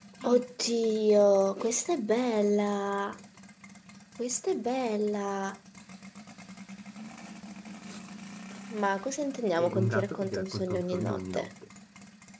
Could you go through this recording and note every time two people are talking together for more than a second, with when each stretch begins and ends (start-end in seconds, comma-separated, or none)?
9.6-11.5